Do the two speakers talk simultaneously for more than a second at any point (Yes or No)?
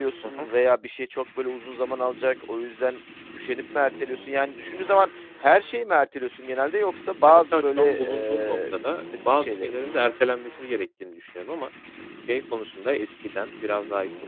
Yes